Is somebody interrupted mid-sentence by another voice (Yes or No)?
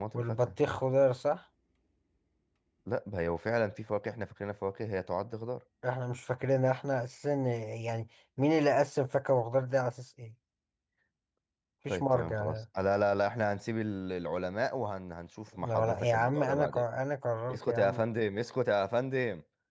Yes